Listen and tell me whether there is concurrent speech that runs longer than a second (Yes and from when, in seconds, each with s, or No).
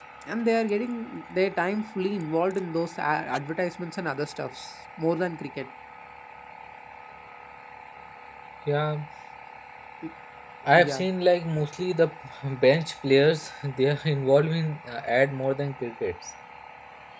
No